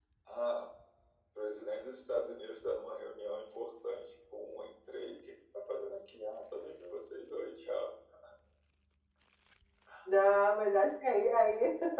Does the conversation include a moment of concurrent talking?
No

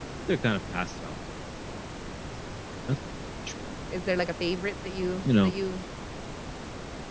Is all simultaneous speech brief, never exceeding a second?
Yes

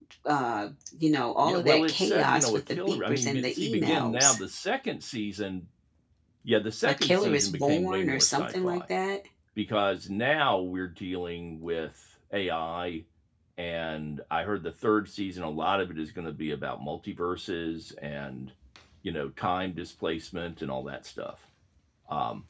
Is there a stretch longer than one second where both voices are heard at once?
Yes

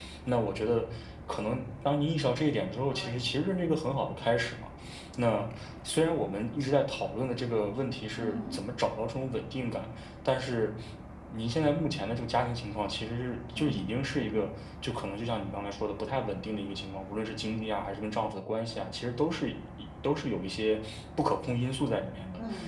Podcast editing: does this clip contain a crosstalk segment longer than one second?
No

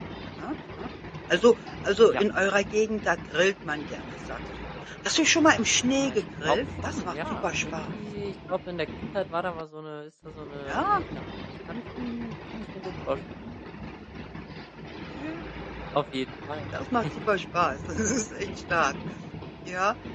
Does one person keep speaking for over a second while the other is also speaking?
Yes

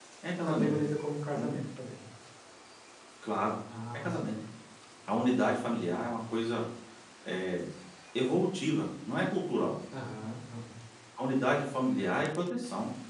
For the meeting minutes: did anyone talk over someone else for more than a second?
No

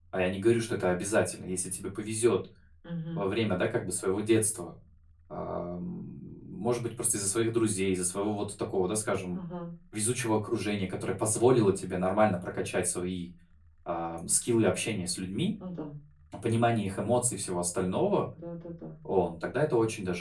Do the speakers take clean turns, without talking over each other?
Yes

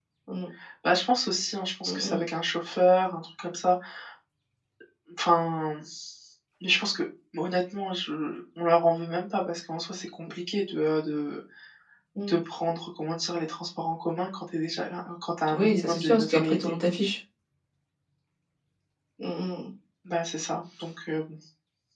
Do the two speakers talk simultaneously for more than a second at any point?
Yes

